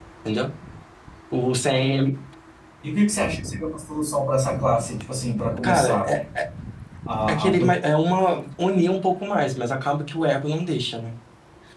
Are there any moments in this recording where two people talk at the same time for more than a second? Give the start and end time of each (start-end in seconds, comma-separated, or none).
none